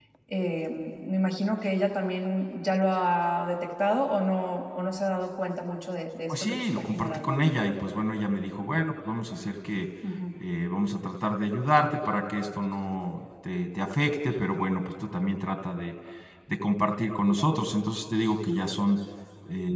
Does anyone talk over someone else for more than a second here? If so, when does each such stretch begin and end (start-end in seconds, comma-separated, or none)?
6.3-7.5